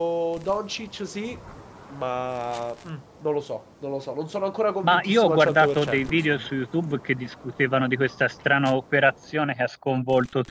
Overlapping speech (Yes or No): Yes